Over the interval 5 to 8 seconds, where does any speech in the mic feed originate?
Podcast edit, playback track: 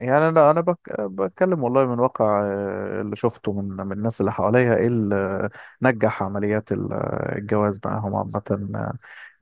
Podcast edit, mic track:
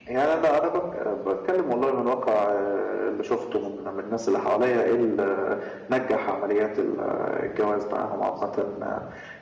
echo only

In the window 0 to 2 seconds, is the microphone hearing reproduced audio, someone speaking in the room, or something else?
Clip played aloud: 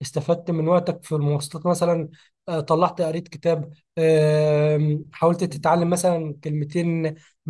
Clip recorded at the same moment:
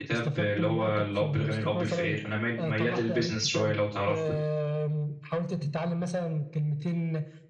both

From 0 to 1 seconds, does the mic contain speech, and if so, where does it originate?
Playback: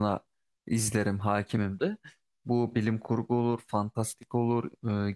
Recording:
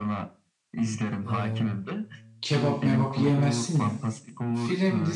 echo only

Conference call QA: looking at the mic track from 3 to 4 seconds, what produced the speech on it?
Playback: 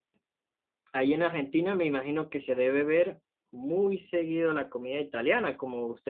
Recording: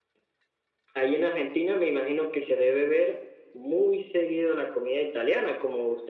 echo only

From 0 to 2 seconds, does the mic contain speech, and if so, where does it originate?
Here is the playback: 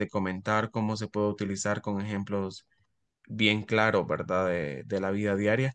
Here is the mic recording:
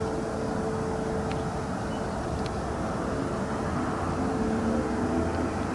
neither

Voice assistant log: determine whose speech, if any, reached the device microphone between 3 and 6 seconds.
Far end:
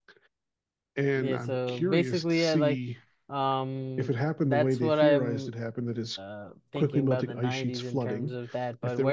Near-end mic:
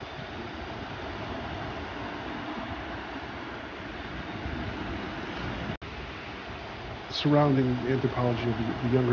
neither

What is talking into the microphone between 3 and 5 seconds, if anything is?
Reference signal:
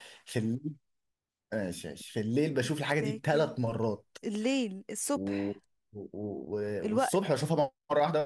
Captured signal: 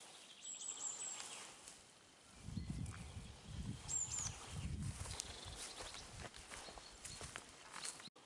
neither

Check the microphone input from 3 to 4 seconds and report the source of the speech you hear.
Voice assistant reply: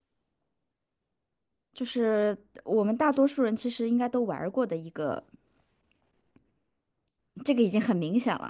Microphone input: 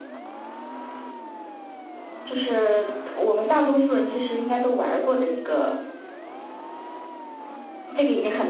echo only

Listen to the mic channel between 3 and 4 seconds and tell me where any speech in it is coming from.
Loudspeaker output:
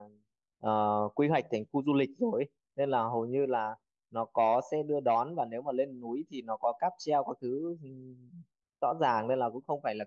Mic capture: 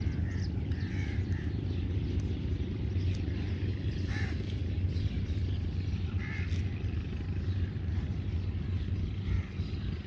neither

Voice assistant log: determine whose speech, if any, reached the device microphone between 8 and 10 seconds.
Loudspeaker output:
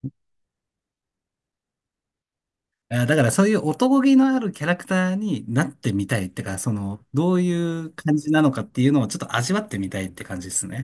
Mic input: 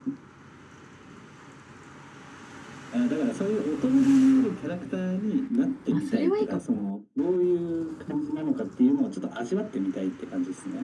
echo only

